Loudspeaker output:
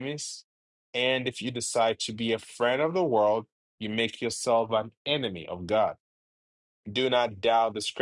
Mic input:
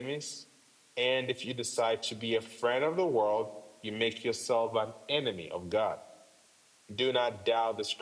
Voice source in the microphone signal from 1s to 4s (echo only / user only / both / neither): echo only